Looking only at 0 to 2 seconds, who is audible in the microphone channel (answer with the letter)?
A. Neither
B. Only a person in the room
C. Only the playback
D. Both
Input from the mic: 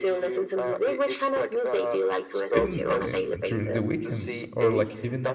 C